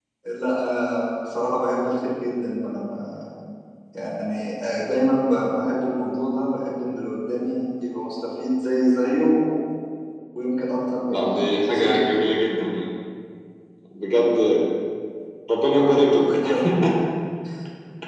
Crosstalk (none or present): present